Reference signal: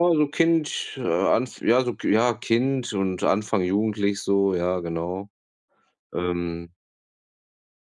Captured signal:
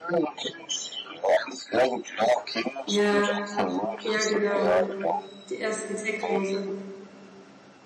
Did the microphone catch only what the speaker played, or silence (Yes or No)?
No